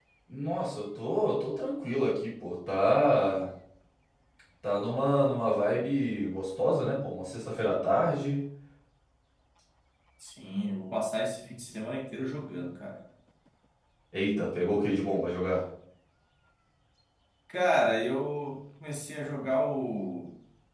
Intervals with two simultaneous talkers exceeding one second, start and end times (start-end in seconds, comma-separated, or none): none